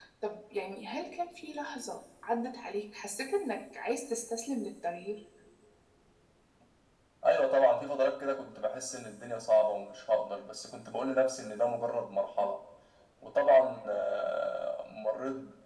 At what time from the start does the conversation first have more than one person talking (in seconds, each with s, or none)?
none